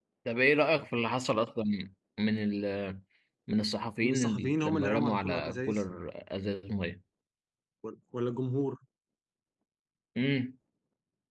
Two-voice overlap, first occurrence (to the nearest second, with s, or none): 4 s